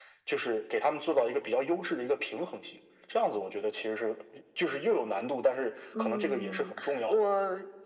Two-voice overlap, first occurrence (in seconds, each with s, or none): 5.9 s